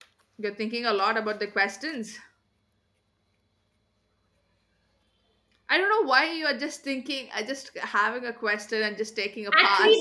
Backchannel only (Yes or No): No